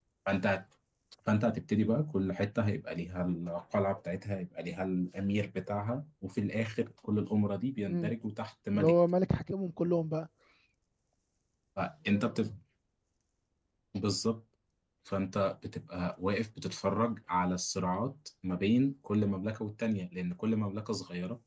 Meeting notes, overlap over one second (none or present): none